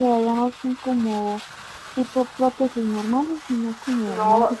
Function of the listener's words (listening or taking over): taking over